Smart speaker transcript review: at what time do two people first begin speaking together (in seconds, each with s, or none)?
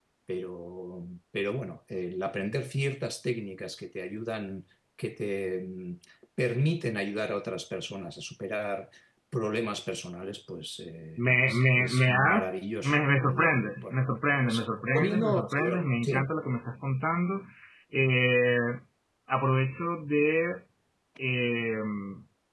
11.2 s